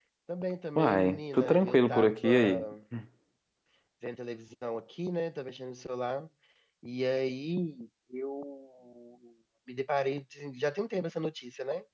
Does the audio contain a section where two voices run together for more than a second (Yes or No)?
Yes